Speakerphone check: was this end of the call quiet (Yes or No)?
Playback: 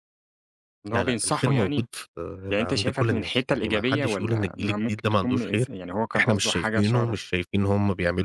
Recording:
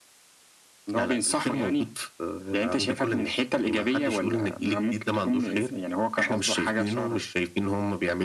Yes